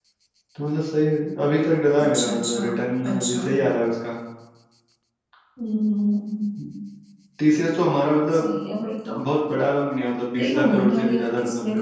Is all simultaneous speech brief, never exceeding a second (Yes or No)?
No